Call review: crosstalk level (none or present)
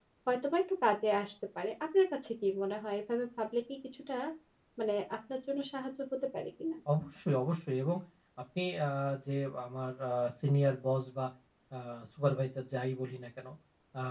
none